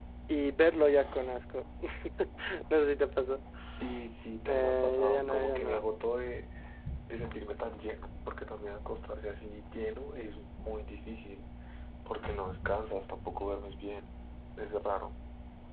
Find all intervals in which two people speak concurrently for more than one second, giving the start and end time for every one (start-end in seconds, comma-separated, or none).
4.5-5.8